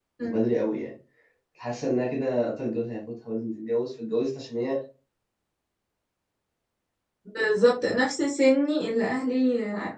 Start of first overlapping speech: none

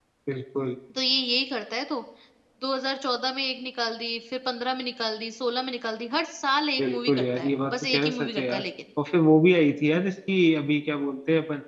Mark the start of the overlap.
6.8 s

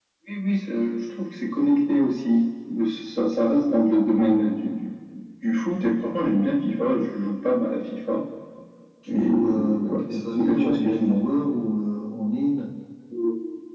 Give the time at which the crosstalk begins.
9.1 s

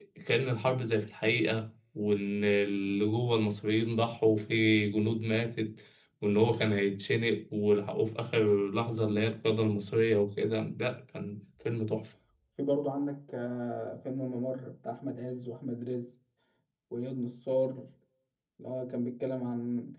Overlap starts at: none

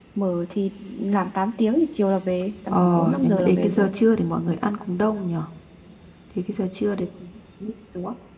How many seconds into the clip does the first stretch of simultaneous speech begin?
2.7 s

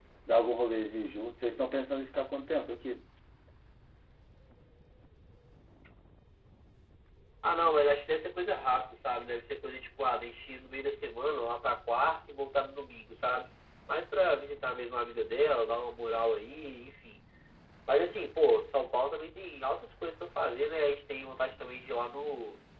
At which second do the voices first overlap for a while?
none

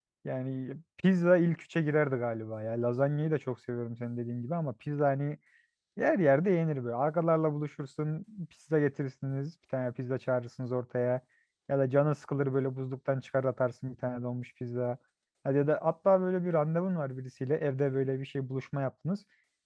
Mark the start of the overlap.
none

